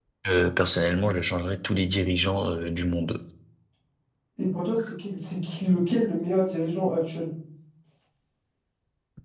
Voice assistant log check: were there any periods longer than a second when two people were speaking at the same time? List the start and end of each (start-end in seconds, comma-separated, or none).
none